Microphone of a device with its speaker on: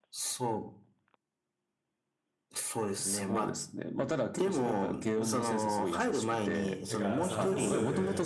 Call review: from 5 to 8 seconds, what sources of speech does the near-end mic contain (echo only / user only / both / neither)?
both